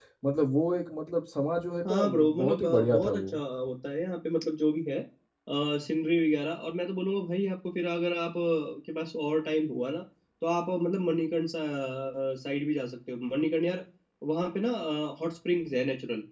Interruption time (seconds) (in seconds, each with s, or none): 1.8 s